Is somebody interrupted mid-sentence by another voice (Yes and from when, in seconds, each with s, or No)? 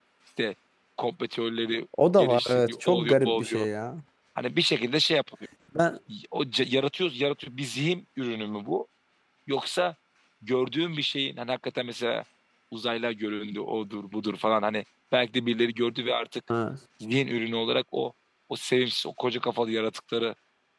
Yes, from 1.9 s